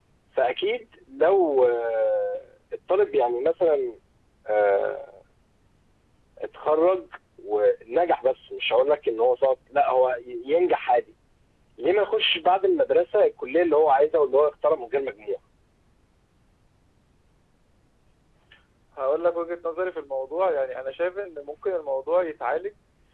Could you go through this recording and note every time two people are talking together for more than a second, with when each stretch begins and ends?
none

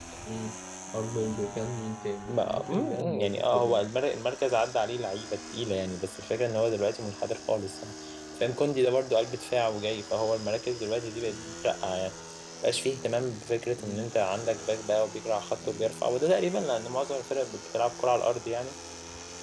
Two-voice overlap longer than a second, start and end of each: 2.3-3.9

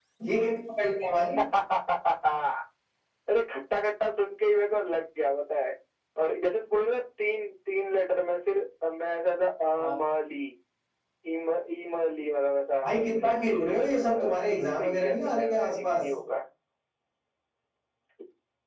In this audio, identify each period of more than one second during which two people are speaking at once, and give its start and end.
13.9-16.0

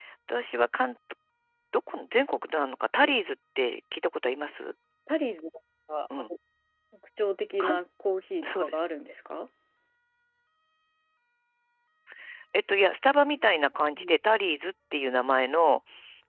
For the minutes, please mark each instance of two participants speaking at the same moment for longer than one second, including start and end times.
none

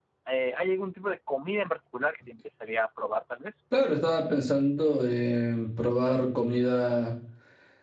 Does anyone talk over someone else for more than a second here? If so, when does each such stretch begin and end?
none

